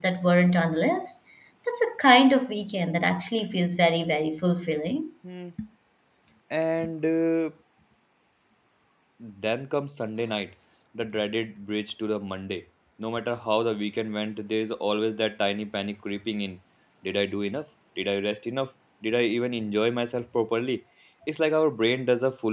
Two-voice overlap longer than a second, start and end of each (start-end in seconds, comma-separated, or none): none